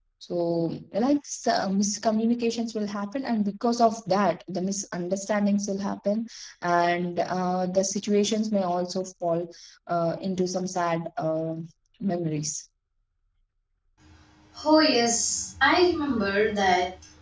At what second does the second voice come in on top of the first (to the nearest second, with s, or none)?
none